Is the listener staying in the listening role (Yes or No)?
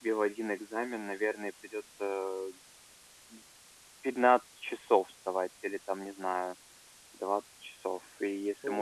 No